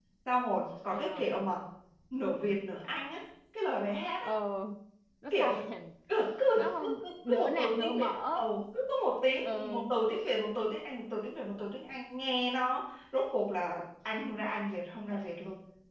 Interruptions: present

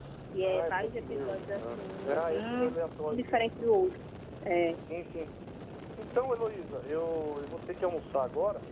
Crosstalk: present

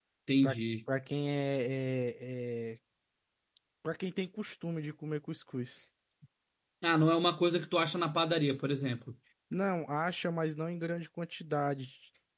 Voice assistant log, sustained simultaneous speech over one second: none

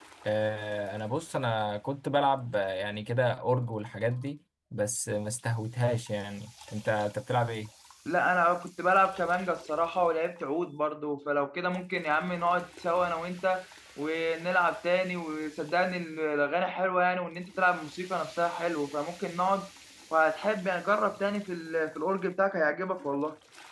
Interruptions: none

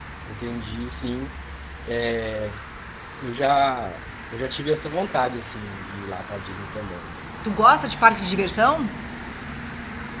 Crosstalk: none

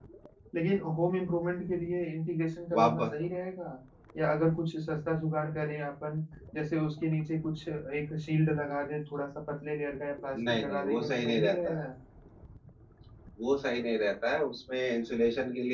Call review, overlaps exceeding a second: present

